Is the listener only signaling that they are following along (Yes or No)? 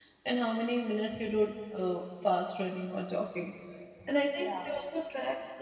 Yes